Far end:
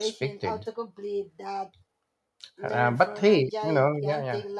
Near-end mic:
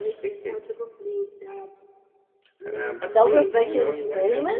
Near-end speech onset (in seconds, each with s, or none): 3.0 s